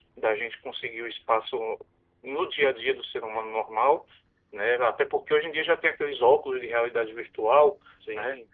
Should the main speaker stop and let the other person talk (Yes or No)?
No